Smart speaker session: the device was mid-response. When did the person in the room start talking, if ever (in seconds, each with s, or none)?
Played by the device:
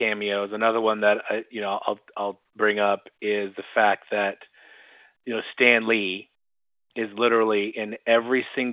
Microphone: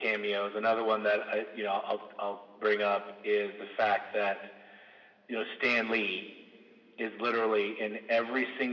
none